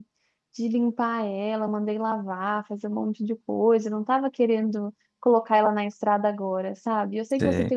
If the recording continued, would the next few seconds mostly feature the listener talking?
No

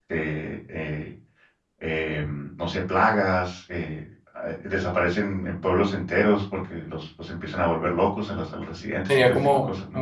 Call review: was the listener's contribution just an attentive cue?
No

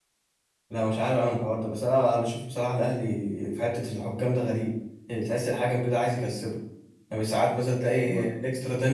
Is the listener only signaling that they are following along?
Yes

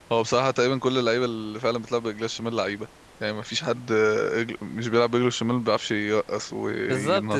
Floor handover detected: Yes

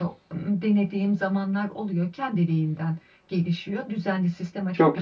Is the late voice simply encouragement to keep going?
Yes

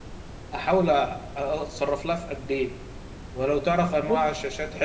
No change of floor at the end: Yes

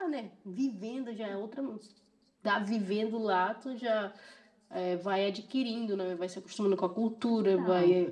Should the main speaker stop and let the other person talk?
No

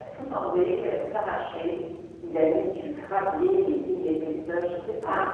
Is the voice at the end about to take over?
No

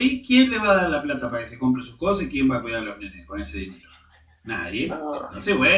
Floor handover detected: No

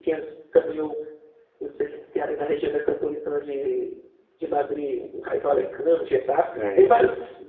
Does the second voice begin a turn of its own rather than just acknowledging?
No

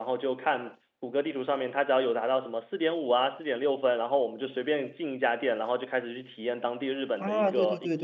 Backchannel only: No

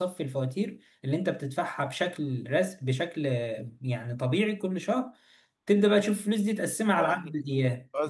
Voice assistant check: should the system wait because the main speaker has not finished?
No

